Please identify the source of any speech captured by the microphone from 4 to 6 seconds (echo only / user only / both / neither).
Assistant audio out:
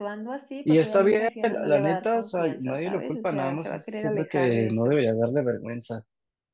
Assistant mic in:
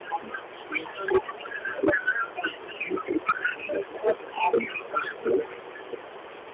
echo only